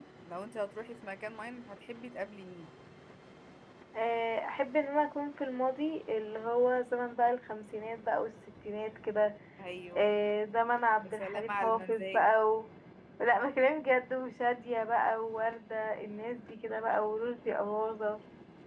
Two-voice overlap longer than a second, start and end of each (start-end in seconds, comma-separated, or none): 11.0-12.2